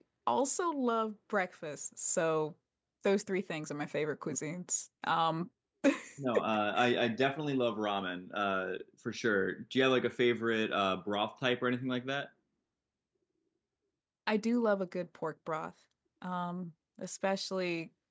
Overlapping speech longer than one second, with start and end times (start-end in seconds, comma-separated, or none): none